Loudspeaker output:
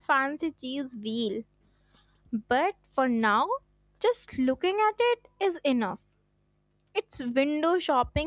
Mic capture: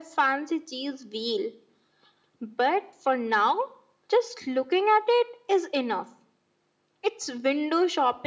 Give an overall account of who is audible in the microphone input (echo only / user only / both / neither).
echo only